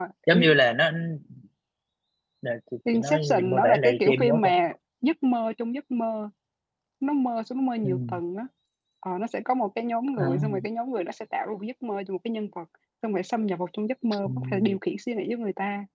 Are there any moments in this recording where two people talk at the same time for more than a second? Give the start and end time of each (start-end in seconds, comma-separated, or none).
2.9-4.5